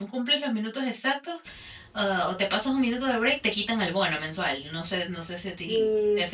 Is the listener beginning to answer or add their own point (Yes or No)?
Yes